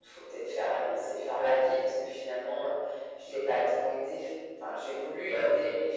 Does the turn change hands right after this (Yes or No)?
No